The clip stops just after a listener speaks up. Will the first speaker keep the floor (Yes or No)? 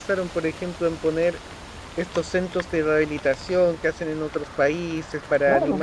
Yes